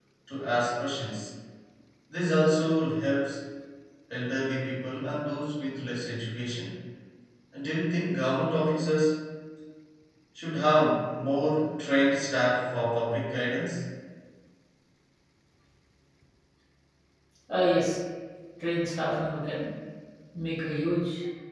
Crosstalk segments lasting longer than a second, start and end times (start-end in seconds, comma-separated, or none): none